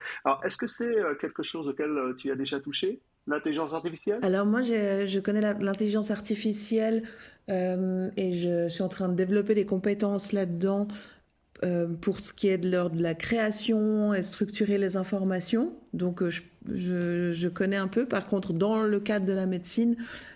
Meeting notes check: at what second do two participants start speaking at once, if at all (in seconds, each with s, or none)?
none